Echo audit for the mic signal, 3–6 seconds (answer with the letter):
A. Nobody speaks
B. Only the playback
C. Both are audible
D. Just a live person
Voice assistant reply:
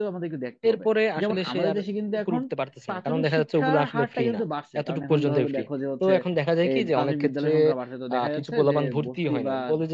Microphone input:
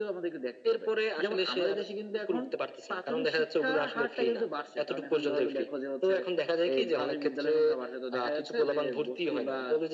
B